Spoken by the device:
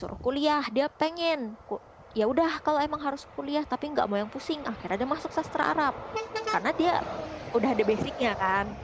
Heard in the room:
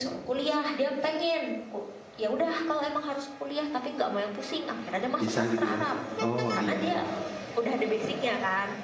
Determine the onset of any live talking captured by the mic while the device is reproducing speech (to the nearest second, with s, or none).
5 s